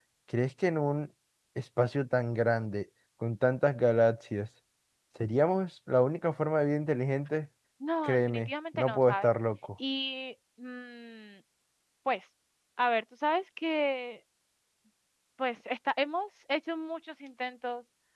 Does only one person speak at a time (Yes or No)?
No